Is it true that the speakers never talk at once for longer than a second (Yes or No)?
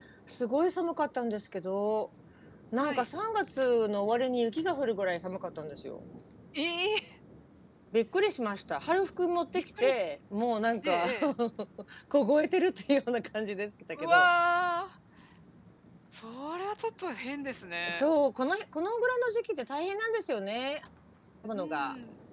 Yes